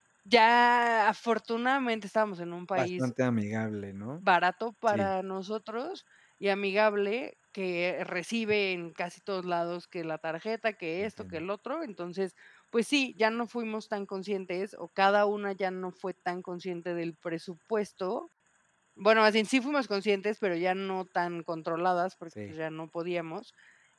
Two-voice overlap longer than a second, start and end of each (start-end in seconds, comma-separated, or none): none